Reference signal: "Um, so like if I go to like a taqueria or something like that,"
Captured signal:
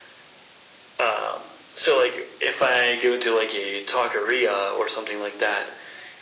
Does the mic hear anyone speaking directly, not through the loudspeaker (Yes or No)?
No